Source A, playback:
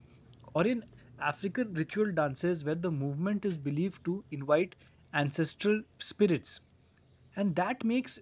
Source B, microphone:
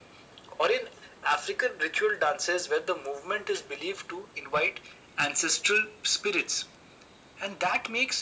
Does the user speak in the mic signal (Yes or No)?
No